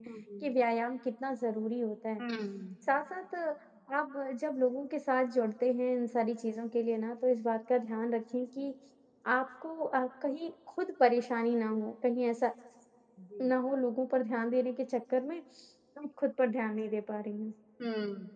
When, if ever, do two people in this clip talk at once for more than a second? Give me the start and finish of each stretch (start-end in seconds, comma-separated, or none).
none